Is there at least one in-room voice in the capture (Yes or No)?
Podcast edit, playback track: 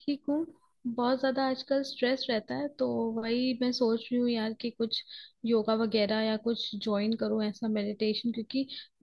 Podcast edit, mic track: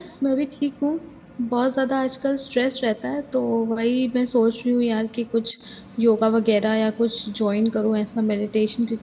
No